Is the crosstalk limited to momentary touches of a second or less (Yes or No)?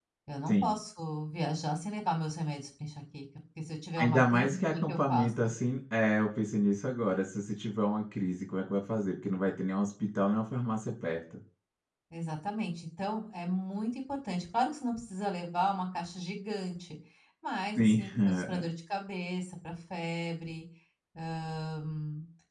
No